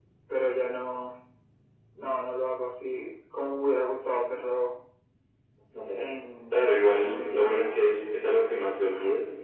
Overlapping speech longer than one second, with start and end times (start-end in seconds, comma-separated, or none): 6.5-7.7